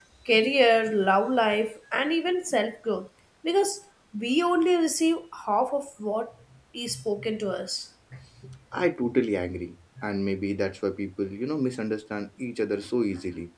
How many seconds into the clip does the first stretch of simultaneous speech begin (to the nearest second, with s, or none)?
none